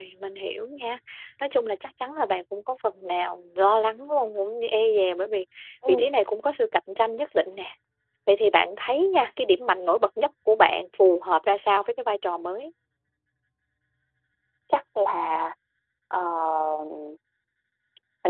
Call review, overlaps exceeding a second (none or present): none